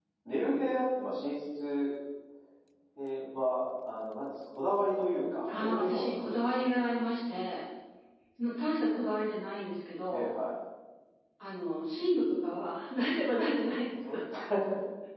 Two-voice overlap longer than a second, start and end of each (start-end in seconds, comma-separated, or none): 5.5-6.9